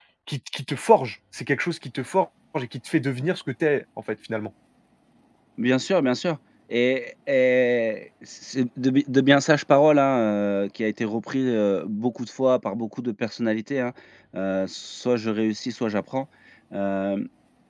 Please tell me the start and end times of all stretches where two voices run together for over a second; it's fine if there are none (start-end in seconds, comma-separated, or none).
none